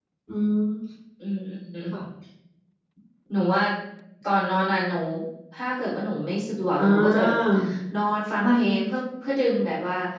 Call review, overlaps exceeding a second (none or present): none